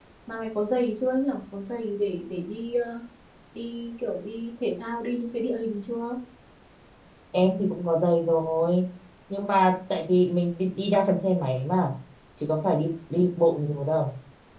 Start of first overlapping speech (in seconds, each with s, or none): none